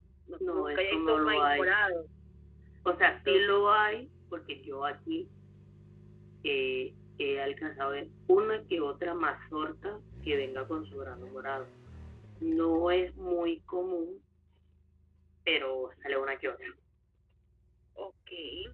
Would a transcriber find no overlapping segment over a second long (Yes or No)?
No